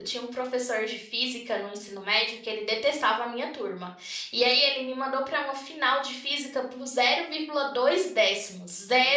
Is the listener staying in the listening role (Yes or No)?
Yes